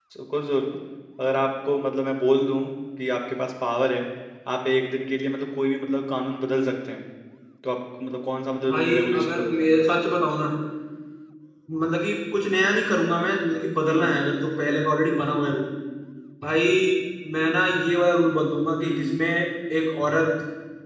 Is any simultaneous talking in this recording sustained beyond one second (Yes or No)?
Yes